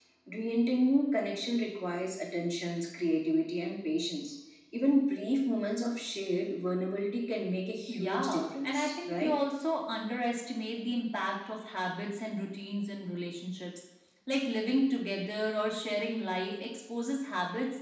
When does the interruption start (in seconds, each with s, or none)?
7.9 s